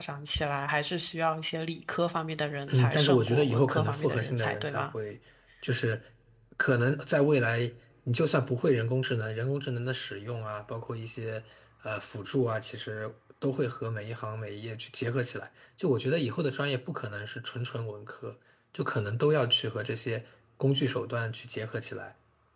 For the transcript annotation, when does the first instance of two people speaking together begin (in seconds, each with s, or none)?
2.7 s